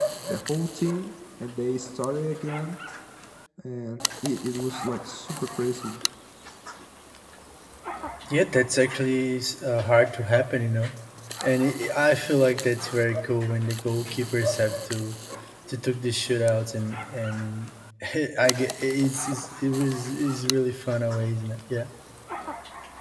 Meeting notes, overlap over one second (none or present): none